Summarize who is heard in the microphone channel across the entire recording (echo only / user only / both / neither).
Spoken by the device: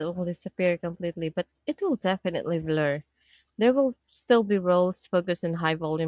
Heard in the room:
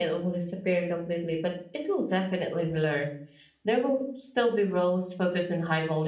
echo only